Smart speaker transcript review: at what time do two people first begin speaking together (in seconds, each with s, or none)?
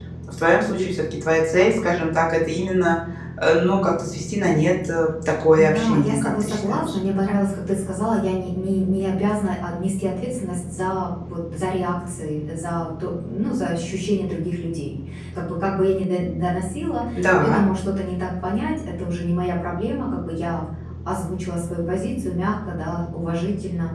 5.5 s